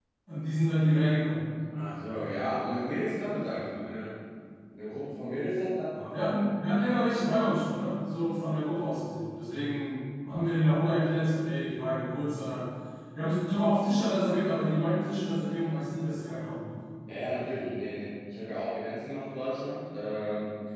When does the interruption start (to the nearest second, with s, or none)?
none